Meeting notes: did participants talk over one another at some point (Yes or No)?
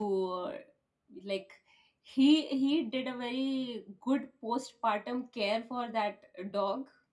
No